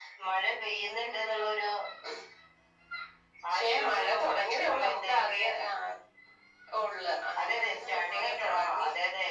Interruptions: present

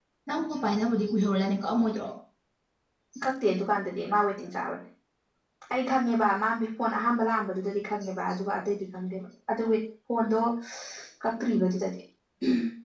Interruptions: none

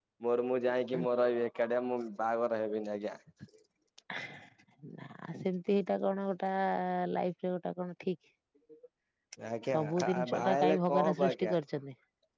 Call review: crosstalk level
present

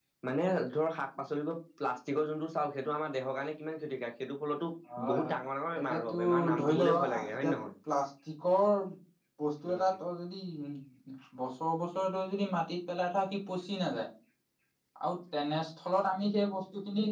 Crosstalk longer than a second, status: present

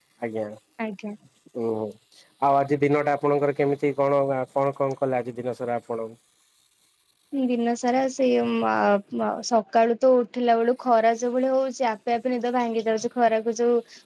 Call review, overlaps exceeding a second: none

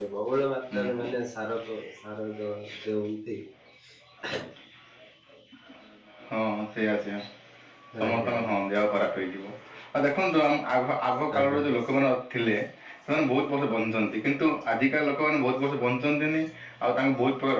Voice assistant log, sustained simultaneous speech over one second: none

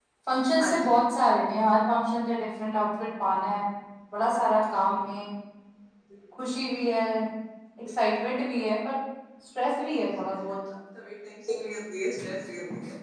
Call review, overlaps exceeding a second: none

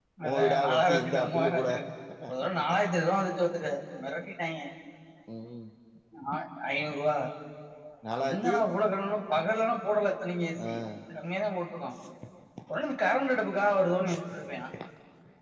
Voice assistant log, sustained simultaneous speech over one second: present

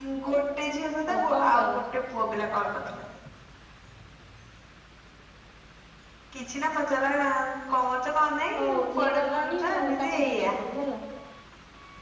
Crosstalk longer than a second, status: present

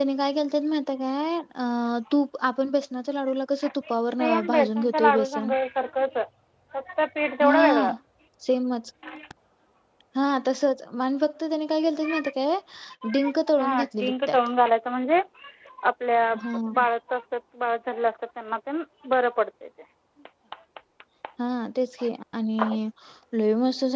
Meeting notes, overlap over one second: present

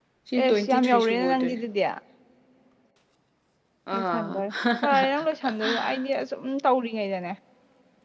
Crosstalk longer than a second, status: present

